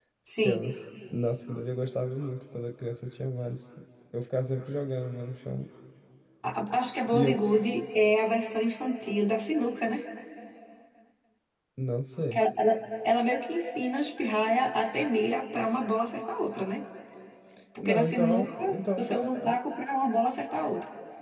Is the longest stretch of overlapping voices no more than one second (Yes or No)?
No